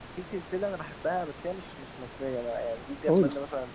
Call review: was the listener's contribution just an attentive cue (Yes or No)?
Yes